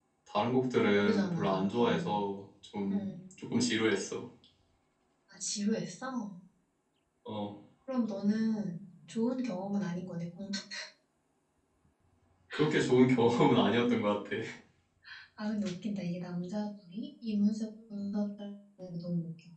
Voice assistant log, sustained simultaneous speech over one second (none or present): present